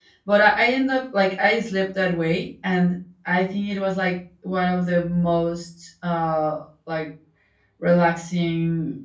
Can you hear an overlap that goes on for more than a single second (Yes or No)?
No